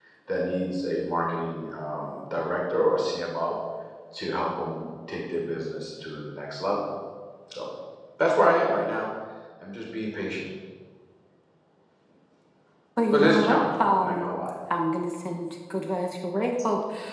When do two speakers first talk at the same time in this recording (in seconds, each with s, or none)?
13.1 s